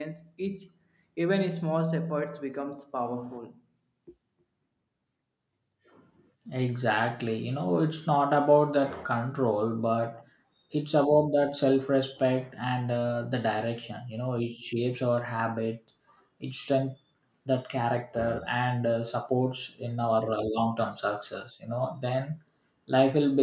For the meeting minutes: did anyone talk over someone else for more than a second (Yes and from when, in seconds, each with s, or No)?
No